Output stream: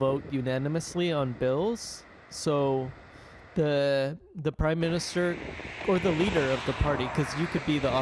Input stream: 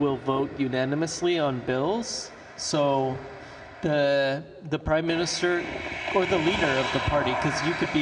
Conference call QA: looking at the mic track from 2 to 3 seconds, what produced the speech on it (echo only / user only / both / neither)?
echo only